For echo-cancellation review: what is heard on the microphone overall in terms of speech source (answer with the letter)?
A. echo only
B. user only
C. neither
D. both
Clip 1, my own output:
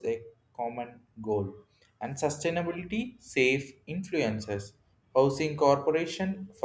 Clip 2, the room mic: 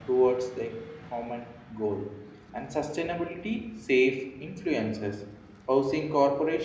A